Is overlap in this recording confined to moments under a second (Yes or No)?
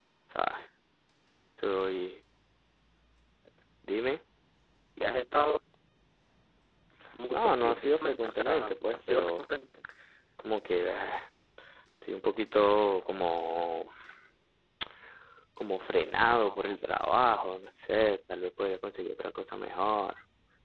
No